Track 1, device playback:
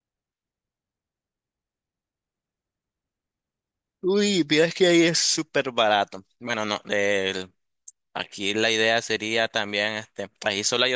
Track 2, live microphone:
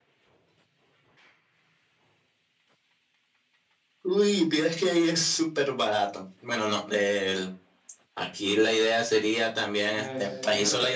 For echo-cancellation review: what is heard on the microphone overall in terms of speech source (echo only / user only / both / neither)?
both